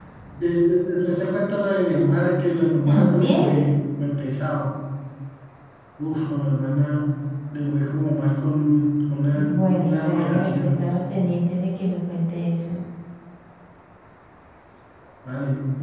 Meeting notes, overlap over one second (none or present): present